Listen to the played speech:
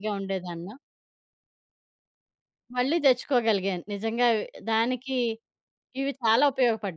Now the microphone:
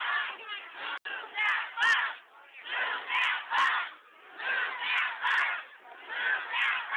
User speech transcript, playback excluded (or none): none